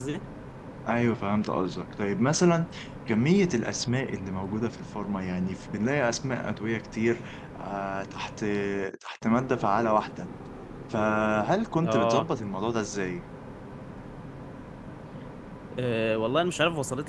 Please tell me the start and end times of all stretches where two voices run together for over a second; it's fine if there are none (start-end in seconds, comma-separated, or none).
none